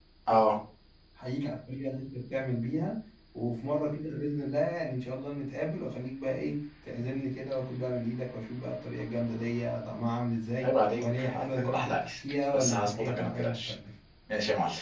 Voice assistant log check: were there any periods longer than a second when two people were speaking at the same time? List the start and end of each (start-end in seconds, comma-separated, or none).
10.6-12.1, 12.5-13.7